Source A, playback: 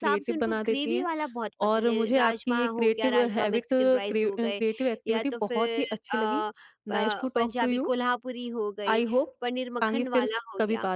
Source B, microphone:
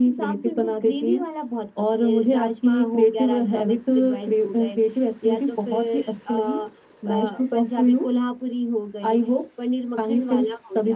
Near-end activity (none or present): none